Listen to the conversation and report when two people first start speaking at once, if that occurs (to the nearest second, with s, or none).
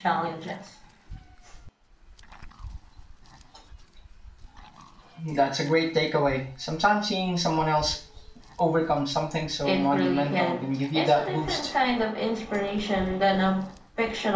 10 s